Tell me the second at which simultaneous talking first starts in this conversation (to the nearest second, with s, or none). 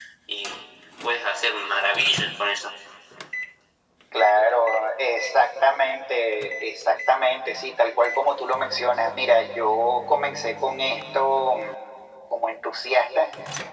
none